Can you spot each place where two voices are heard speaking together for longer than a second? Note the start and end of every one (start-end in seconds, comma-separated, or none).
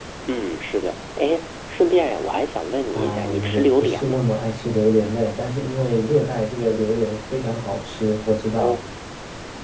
2.9-4.3